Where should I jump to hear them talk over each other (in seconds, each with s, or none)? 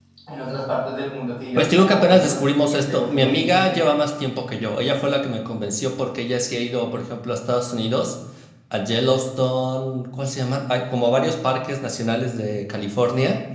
1.6 s